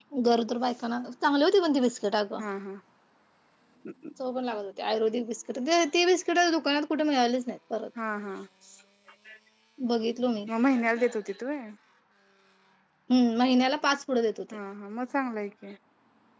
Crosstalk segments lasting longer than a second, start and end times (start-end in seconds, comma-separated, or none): none